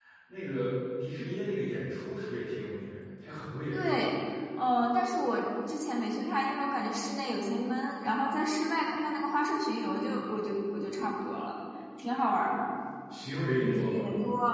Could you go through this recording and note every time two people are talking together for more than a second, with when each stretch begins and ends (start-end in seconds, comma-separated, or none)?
none